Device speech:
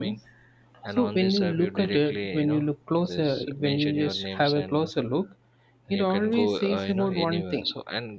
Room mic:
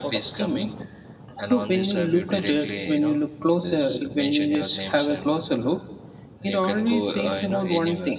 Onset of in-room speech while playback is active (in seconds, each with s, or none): none